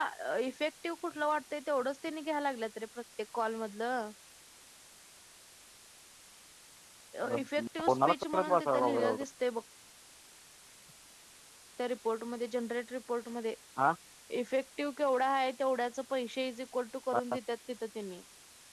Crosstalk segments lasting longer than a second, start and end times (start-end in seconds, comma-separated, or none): 7.8-9.2